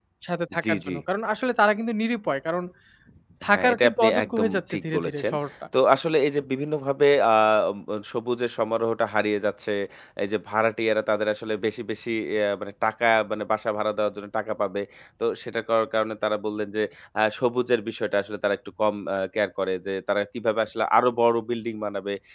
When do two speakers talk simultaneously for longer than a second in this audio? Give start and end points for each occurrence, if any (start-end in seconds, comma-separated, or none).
3.5-5.2